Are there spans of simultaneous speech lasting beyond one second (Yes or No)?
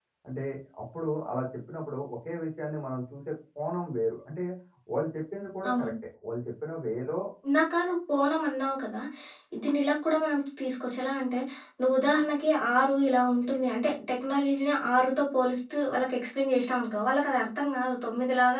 No